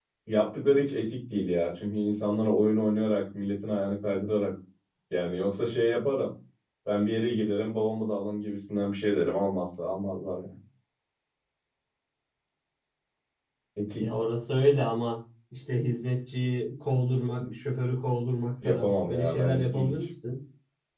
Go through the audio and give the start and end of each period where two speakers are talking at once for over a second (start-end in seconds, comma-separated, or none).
18.6-19.9